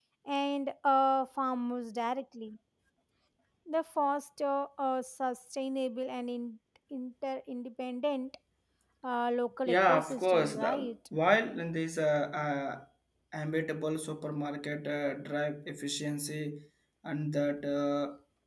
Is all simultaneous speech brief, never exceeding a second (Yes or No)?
No